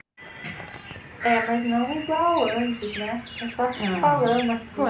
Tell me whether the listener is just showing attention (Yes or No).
No